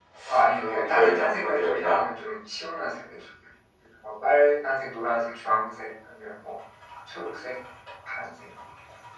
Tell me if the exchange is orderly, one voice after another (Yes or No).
No